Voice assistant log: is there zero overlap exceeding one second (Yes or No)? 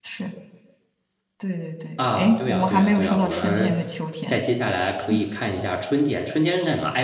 No